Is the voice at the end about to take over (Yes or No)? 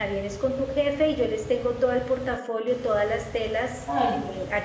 No